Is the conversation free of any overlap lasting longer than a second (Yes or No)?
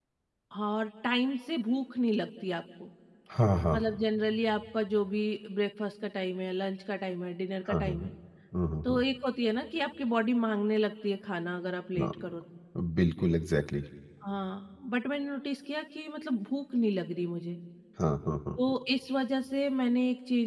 Yes